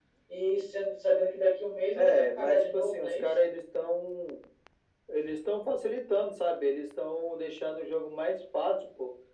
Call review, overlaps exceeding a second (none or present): present